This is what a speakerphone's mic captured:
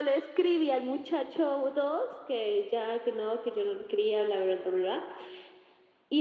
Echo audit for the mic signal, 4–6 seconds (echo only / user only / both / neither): echo only